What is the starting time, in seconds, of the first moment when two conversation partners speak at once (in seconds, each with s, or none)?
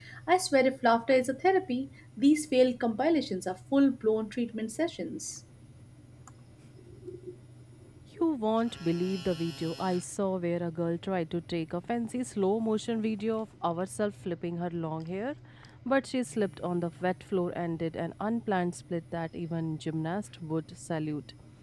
none